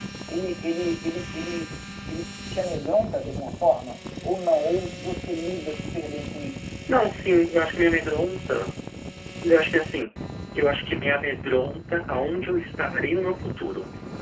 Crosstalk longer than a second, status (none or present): none